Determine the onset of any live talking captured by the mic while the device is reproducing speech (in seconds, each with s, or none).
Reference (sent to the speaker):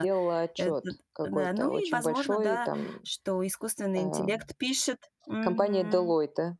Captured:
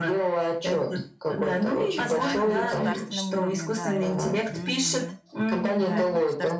1.9 s